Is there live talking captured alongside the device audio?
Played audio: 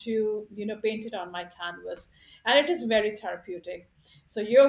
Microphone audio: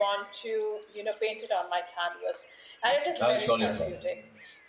Yes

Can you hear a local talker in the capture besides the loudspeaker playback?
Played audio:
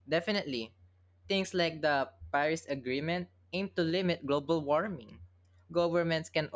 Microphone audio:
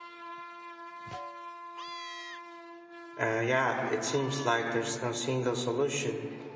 Yes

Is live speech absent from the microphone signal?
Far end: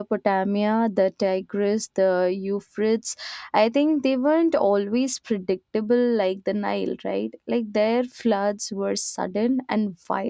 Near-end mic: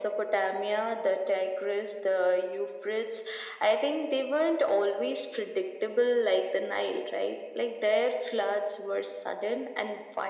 Yes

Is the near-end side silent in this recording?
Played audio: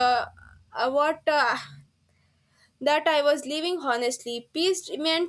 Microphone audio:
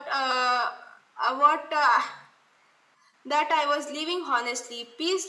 Yes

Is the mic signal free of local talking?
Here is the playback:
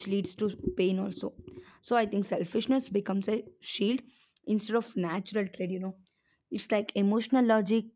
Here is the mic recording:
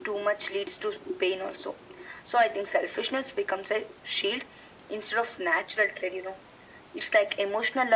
Yes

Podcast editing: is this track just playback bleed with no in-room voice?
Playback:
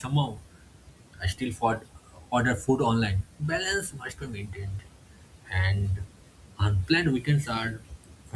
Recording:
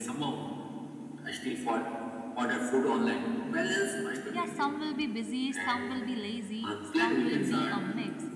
No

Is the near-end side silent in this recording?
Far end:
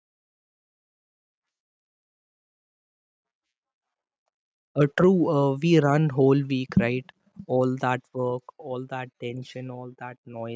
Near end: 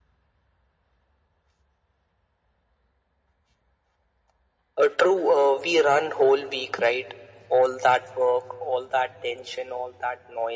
Yes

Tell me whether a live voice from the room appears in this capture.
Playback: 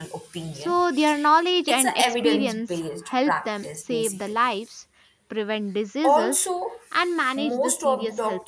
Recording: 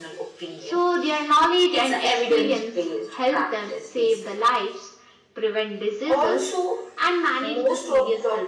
No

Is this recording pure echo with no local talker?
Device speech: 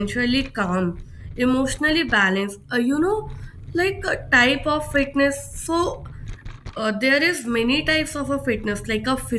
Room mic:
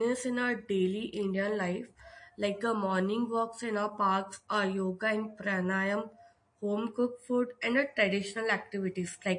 No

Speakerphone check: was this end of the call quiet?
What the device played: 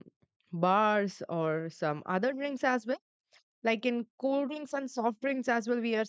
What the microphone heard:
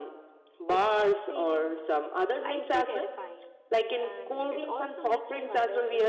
No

